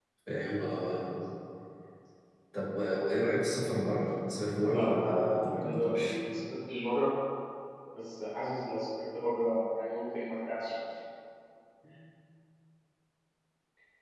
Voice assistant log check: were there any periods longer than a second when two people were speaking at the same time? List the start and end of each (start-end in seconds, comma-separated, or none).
4.7-6.2